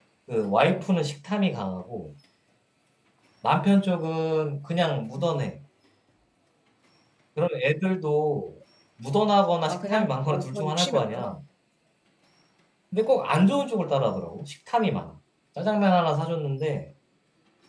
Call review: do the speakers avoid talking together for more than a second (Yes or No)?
No